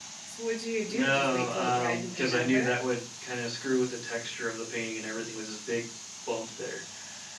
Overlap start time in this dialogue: 0.9 s

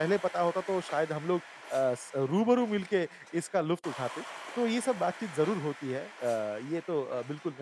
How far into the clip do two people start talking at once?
none

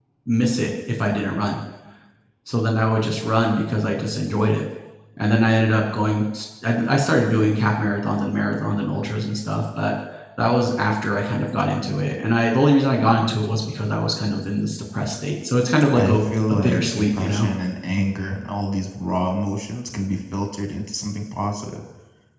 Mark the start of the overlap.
15.9 s

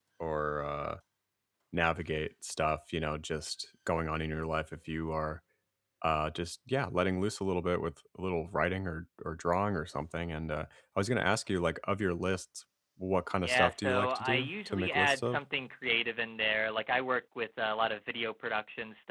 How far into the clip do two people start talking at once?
13.4 s

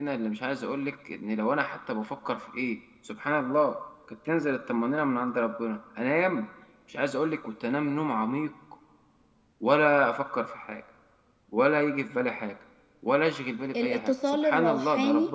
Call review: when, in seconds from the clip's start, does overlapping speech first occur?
13.7 s

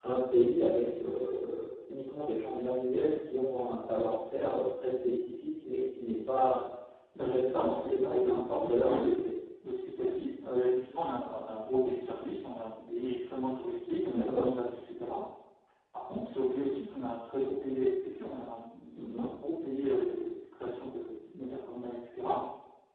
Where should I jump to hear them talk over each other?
7.2 s

